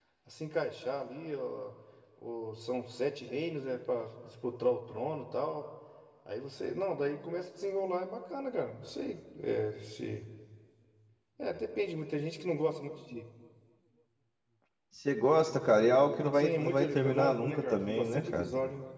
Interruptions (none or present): present